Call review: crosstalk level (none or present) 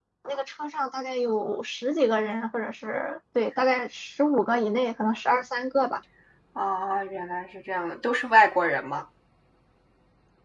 none